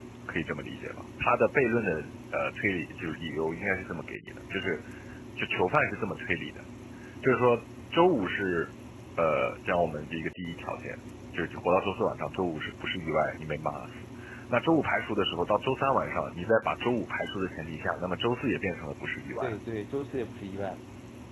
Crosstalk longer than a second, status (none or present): none